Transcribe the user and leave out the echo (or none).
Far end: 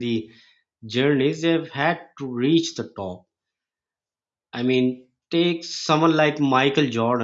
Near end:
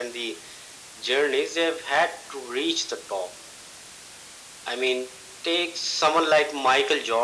none